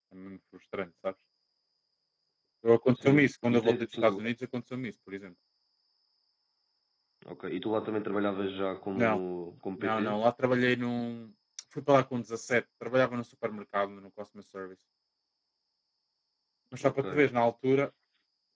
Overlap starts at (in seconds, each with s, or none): 2.9 s